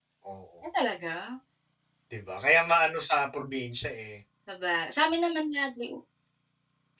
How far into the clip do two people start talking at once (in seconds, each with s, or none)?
none